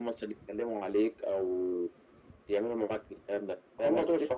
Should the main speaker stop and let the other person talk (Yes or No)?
Yes